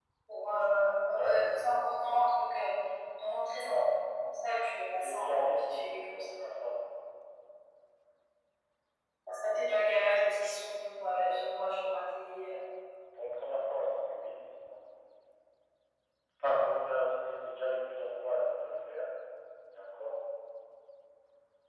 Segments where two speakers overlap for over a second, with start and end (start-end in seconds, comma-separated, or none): 4.8-6.0